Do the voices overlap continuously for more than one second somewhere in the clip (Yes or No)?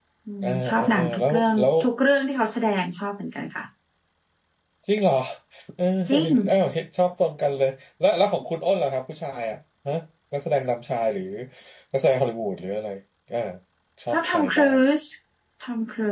Yes